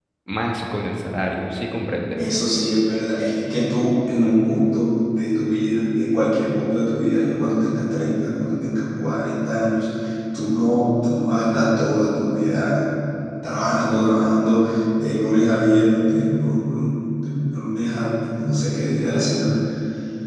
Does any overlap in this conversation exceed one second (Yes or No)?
No